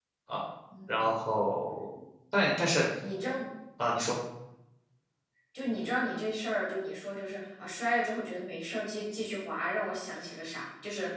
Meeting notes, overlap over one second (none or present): none